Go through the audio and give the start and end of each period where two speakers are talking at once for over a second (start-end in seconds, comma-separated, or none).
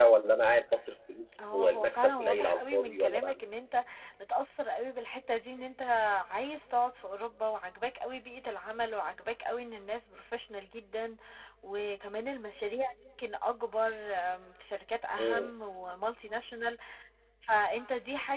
1.5-3.4